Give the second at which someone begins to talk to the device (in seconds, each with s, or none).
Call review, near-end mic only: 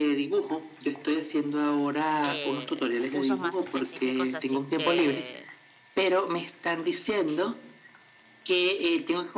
2.2 s